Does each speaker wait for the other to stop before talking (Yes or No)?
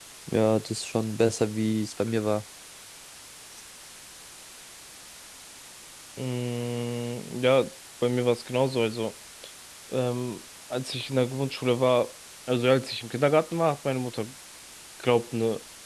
Yes